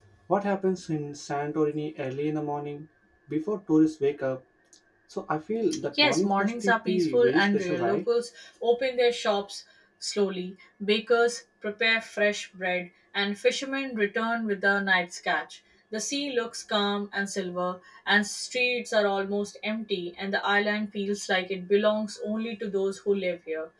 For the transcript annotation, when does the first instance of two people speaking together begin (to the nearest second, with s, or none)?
6 s